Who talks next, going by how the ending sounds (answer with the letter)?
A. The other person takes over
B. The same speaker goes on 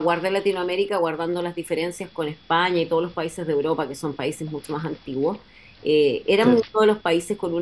B